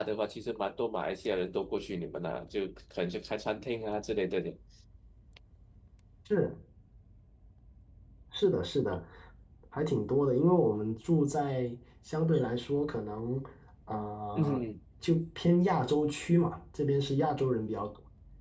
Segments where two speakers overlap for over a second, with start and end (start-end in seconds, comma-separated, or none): none